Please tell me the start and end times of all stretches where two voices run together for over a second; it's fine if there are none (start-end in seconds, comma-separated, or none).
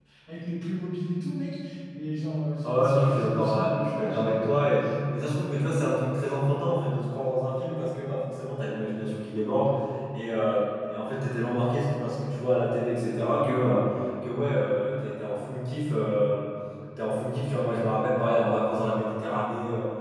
2.6-4.5